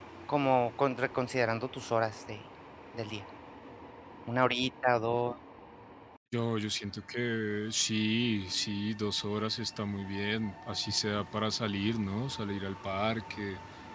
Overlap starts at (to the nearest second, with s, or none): none